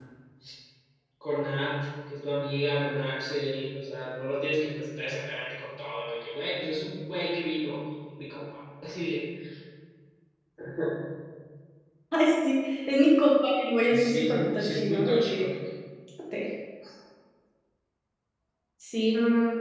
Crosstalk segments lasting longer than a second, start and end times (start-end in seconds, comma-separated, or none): 13.9-15.5